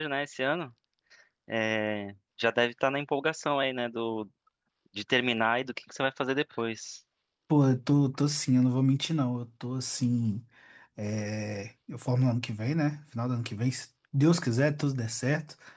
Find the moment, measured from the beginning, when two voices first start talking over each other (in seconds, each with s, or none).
none